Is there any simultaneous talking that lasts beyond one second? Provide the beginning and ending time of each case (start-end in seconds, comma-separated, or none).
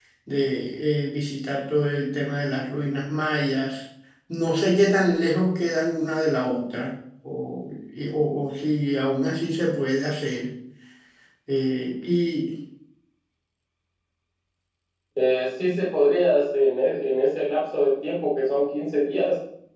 none